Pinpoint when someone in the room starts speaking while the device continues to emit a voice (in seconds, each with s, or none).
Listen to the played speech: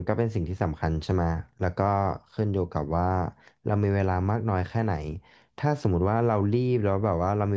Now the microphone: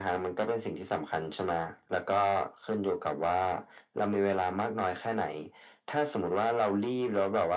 none